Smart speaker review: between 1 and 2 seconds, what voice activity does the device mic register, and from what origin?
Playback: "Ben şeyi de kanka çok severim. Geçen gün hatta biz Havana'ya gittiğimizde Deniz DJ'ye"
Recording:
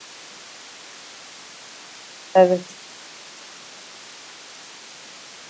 neither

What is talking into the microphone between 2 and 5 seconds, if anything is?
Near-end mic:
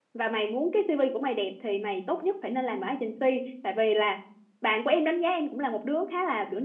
user only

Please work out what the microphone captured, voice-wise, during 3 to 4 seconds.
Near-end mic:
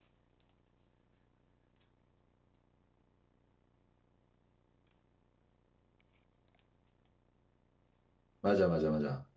neither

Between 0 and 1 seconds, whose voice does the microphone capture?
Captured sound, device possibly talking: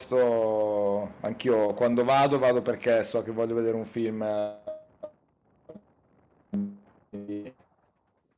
user only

